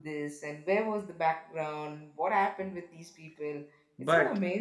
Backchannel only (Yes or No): No